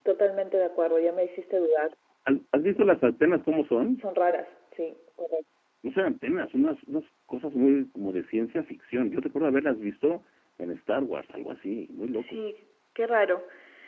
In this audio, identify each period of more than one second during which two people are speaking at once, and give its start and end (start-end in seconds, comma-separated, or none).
none